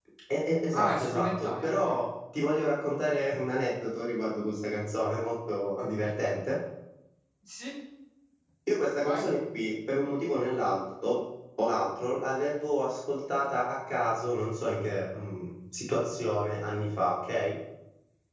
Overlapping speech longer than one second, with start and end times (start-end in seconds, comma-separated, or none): 0.7-2.0